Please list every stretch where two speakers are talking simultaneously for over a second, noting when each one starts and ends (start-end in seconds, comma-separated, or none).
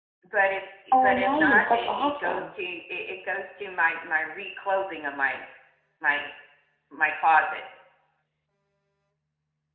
0.9-2.5